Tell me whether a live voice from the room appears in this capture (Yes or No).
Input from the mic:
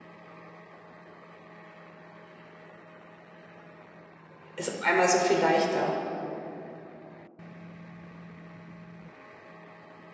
Yes